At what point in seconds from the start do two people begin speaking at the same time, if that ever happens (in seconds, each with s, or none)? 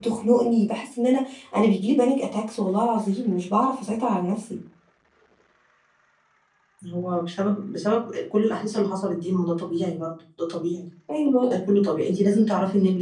none